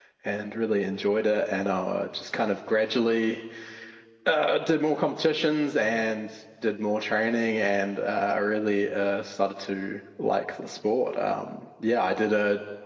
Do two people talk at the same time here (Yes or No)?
No